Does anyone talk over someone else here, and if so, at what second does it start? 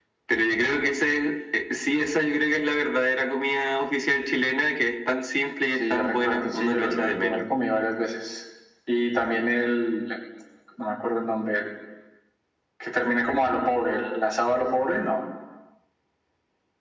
6 s

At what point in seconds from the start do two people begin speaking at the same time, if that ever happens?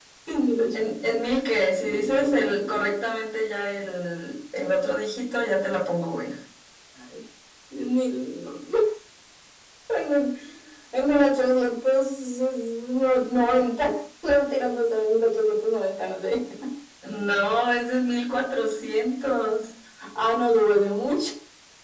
2 s

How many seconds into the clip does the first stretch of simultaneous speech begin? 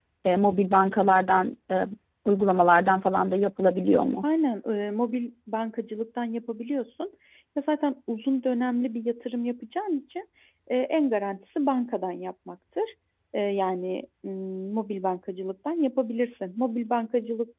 none

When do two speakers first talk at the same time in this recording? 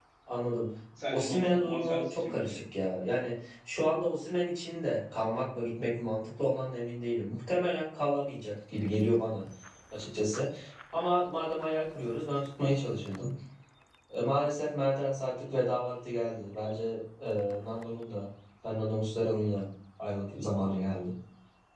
1 s

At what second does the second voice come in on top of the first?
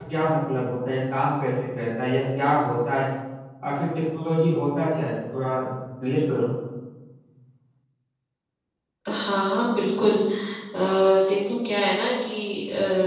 none

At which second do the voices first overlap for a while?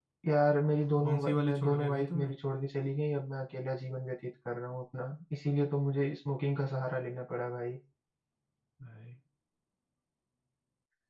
1 s

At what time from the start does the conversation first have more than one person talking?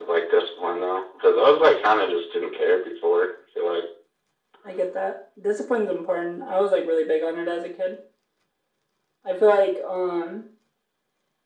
none

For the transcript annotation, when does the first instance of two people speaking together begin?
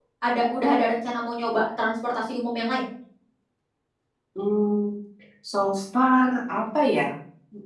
none

